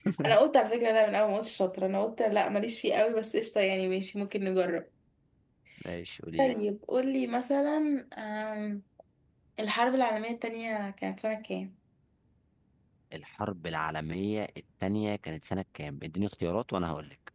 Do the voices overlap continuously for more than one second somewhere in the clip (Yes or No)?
No